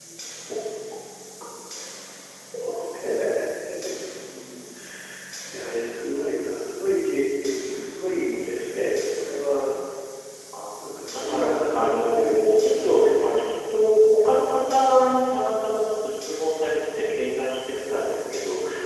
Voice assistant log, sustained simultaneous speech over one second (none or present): present